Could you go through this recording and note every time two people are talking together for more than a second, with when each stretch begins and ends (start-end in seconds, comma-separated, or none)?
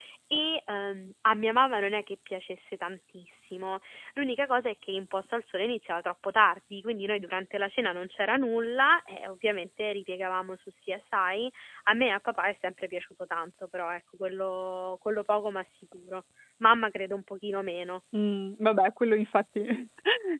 none